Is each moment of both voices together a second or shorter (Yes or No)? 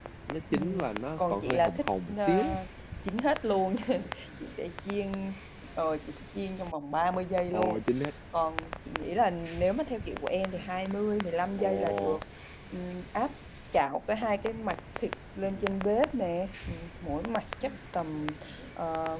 No